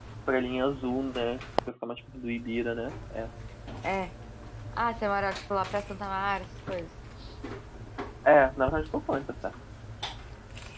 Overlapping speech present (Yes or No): No